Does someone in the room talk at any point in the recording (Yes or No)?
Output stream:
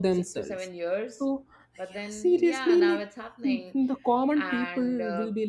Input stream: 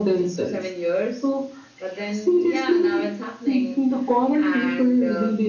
No